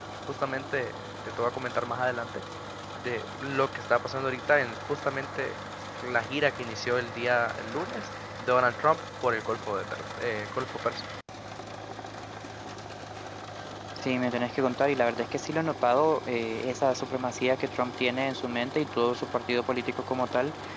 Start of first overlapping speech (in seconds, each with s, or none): none